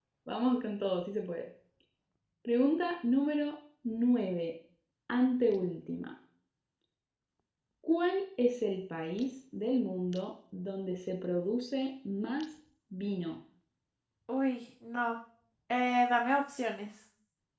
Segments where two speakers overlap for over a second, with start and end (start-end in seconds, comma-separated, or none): none